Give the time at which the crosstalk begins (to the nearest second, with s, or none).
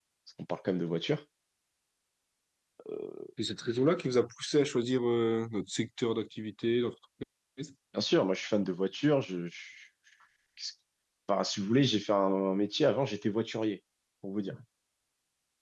none